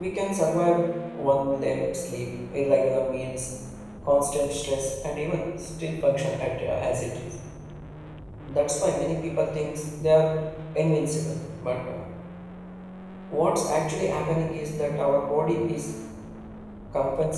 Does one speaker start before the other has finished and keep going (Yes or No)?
No